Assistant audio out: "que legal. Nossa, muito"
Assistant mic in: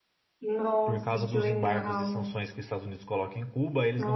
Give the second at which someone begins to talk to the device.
0.8 s

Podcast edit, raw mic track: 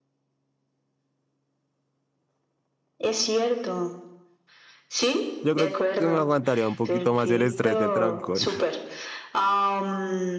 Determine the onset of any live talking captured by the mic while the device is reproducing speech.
5.4 s

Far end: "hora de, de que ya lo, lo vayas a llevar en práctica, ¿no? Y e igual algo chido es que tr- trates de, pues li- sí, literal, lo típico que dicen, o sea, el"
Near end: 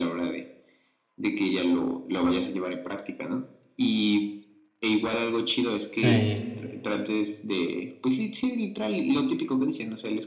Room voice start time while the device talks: 5.9 s

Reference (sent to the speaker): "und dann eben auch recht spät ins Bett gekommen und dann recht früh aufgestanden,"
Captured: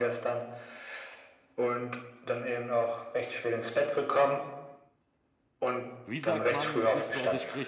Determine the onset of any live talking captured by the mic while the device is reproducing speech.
6.0 s

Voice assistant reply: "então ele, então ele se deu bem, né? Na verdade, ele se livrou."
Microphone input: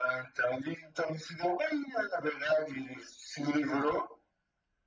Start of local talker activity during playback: none

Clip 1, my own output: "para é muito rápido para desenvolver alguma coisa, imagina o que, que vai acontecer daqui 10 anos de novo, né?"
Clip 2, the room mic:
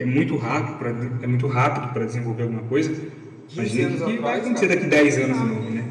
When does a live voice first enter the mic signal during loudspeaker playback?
3.4 s

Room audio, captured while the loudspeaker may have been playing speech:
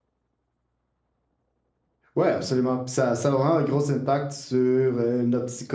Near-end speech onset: 2.2 s

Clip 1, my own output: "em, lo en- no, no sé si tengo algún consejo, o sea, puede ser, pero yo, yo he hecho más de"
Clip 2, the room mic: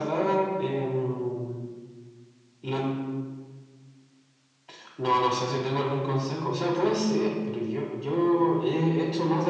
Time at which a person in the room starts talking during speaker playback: none

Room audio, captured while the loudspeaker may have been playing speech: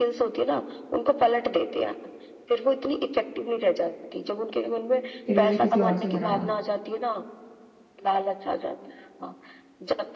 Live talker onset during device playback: 5.3 s

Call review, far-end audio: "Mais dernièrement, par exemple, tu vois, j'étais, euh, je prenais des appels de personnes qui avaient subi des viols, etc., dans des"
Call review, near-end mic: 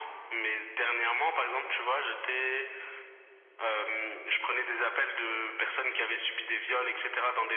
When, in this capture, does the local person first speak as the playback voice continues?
none

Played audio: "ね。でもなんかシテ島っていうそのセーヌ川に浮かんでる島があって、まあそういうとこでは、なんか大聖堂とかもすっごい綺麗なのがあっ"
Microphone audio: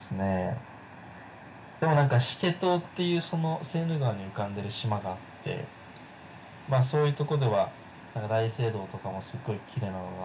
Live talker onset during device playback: none

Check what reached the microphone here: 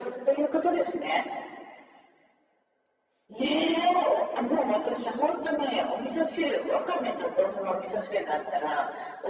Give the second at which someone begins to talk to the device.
none

